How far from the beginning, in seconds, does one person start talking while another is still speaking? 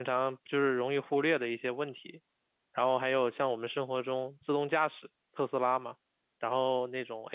none

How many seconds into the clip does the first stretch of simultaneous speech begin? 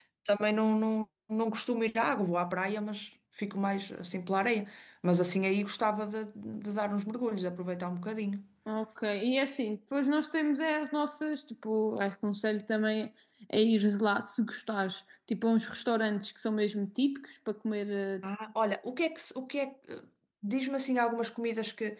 none

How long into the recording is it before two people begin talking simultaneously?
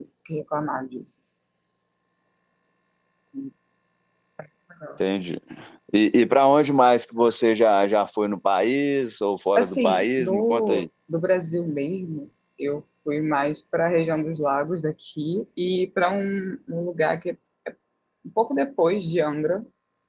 9.6 s

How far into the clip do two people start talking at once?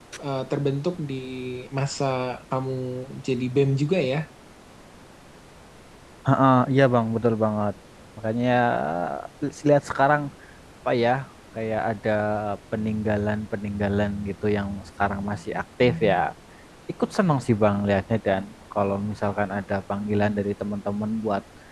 none

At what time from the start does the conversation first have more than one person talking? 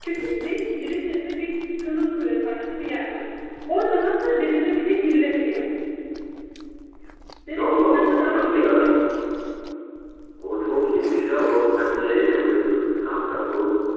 7.6 s

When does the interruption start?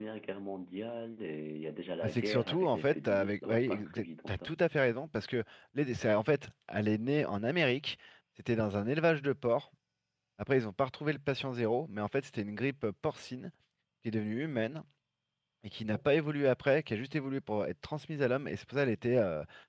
2.0 s

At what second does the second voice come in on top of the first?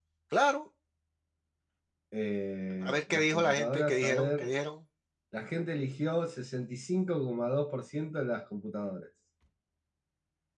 2.8 s

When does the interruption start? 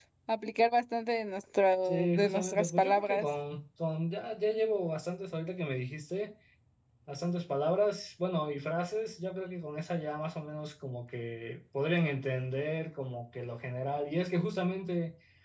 1.8 s

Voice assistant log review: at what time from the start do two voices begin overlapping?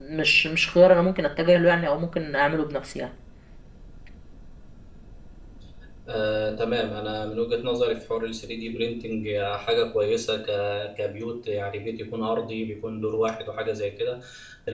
none

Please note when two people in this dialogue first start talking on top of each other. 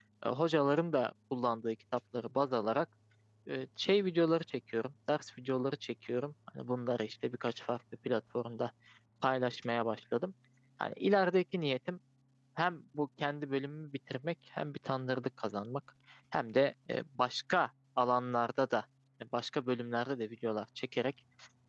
none

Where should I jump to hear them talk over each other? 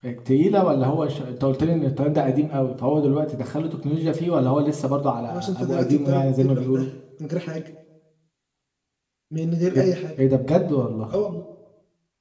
5.3 s

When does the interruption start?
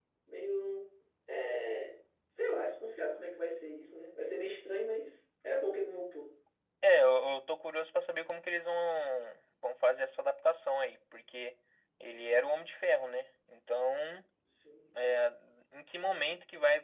none

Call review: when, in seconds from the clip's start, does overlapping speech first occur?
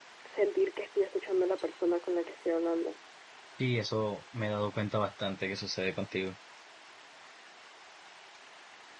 none

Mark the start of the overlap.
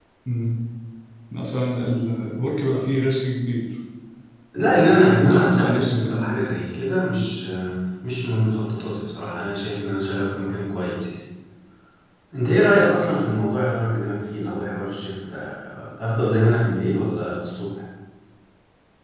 4.6 s

